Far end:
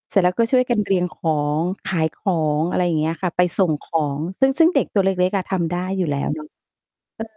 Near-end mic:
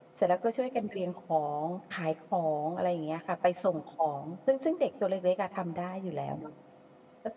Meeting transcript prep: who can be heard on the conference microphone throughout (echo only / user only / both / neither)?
echo only